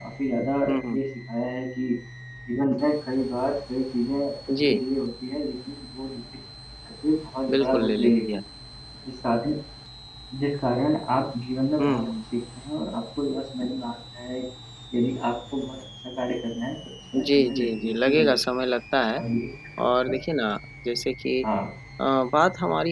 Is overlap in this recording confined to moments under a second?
No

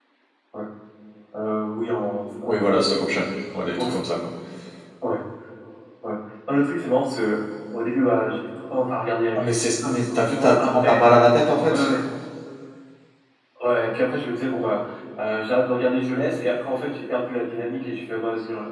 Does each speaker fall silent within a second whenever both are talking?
No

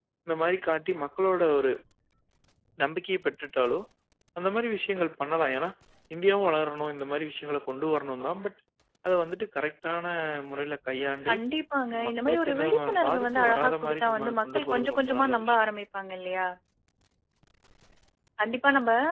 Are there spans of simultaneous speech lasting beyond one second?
Yes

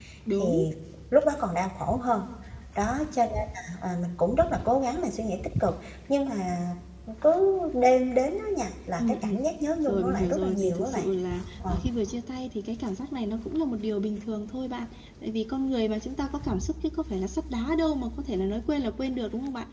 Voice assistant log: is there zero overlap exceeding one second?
No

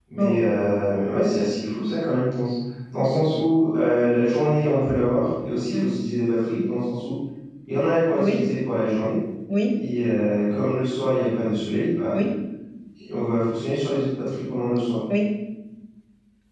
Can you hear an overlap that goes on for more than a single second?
No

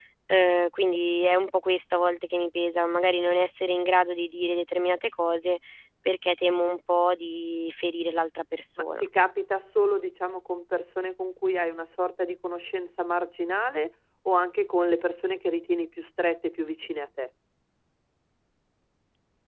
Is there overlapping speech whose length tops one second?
No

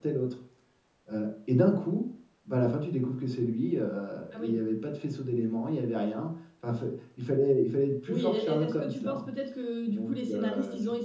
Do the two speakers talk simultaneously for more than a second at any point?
Yes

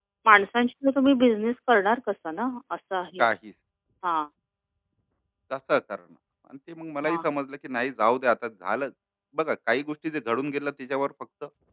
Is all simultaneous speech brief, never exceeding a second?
Yes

